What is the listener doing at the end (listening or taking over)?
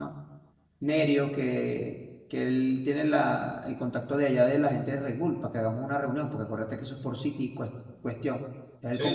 taking over